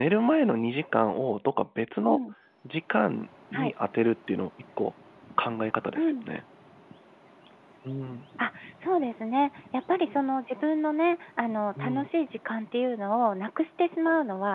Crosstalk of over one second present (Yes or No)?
No